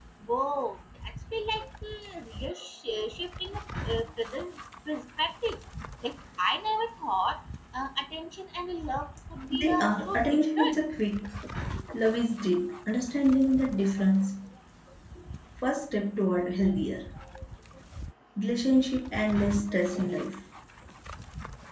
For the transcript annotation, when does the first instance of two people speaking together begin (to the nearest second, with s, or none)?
9 s